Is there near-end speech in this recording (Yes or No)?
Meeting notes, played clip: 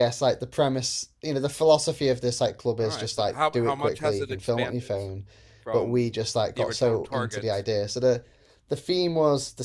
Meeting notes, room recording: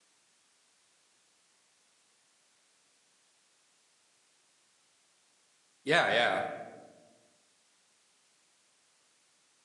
Yes